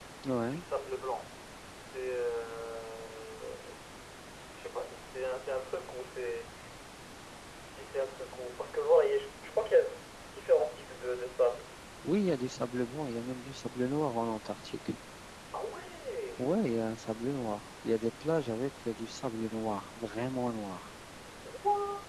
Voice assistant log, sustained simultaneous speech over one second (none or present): none